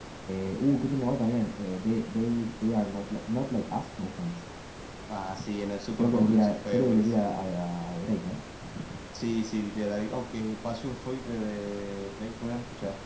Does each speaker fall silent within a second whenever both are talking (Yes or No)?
No